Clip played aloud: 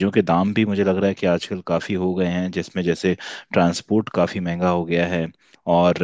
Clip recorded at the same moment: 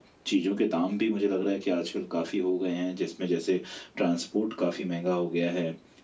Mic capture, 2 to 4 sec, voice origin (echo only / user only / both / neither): echo only